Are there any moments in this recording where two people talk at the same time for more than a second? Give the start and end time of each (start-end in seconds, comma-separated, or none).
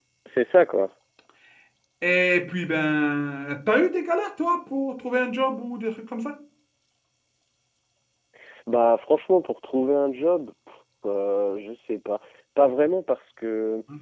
none